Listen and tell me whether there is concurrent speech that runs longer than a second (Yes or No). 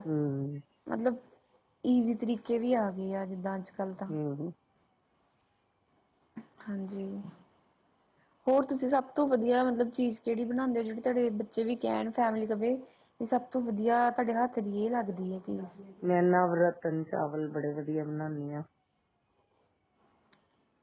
No